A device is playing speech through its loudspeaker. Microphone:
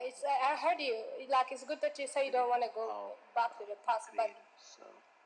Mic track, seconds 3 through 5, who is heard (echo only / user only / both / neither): echo only